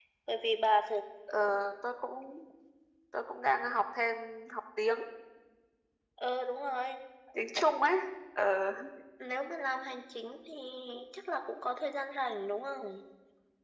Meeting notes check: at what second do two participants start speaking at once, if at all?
none

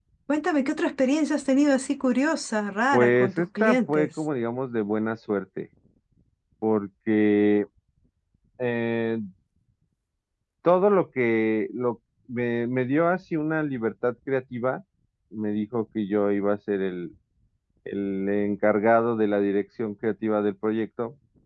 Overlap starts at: 3 s

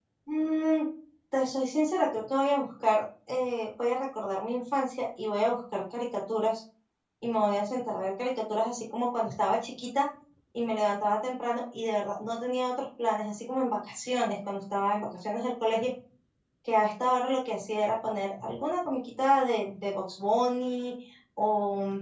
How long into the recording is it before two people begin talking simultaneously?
none

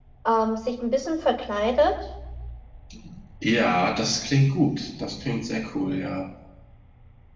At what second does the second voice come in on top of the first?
none

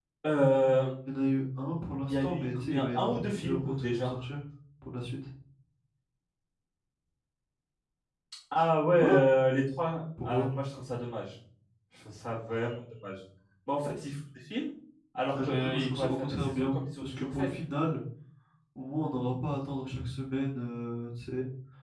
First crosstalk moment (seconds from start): 2 s

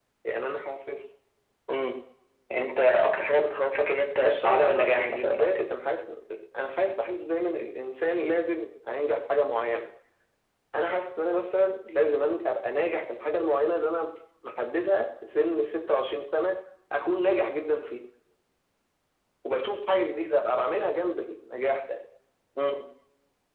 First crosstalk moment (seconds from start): 4 s

